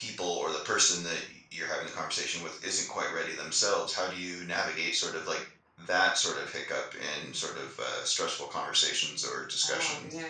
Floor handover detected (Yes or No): Yes